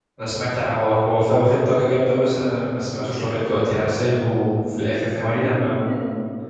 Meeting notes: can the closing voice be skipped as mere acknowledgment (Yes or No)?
No